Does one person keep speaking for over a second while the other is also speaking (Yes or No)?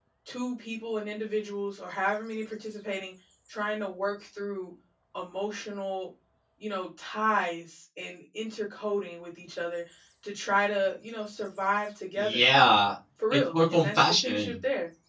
Yes